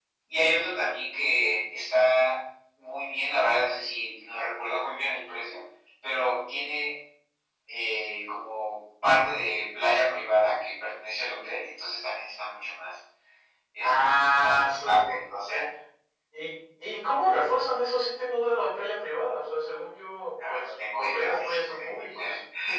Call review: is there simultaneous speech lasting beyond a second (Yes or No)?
Yes